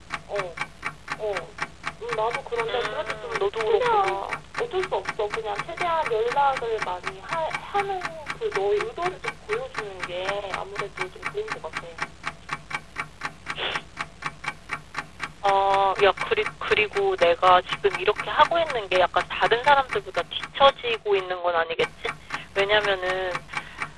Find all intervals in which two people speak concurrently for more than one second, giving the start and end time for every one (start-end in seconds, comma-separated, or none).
2.7-4.4